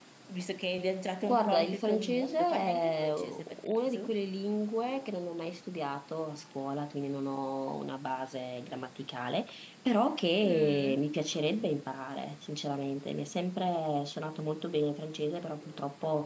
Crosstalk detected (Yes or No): Yes